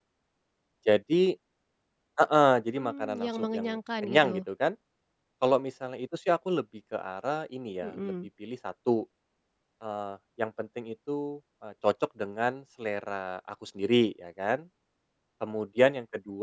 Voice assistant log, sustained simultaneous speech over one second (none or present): present